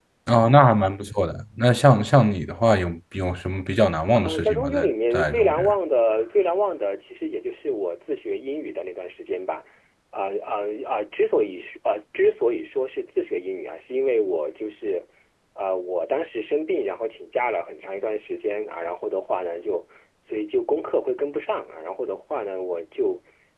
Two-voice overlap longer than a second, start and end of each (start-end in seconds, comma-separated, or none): 4.1-5.6